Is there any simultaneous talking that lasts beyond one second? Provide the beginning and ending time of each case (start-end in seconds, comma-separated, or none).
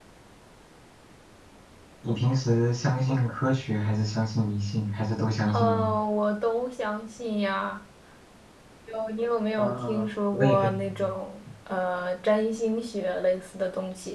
9.6-11.1